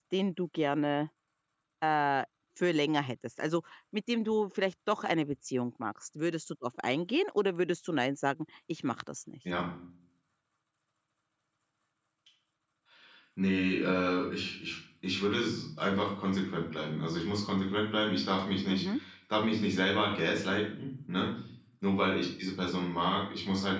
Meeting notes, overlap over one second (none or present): none